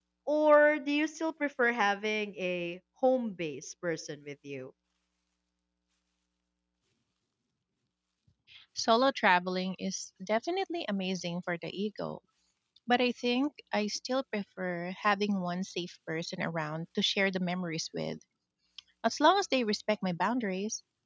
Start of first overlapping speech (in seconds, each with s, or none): none